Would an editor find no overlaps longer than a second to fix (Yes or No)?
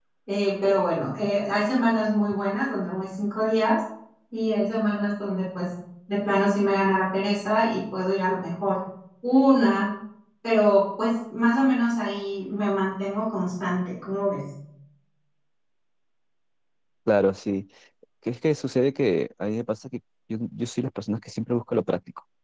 Yes